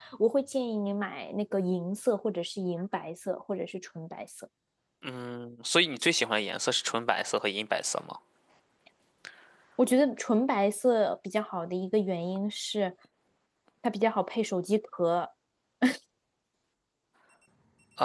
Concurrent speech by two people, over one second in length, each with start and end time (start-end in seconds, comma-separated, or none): none